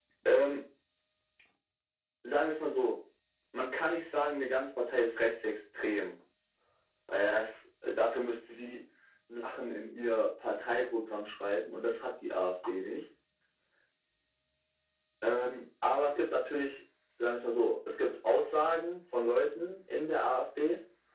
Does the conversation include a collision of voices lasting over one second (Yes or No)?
No